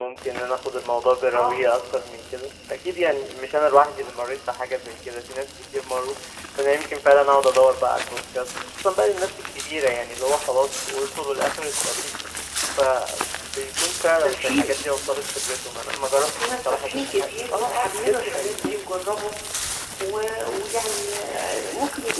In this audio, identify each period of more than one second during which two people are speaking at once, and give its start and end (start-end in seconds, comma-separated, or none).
16.1-18.8